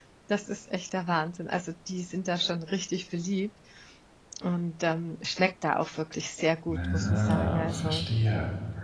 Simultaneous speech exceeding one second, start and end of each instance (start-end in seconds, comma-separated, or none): 6.7-8.1